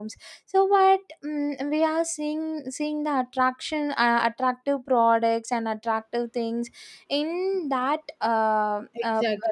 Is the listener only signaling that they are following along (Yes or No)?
No